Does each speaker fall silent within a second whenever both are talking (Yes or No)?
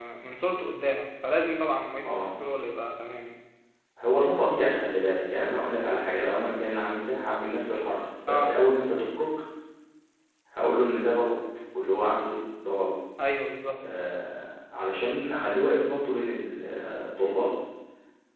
Yes